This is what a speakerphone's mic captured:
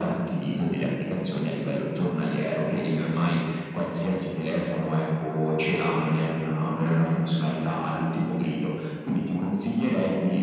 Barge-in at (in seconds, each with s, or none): none